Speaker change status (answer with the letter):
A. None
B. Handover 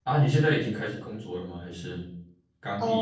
B